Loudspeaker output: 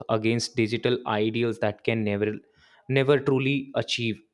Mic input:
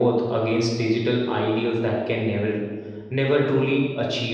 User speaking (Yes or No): No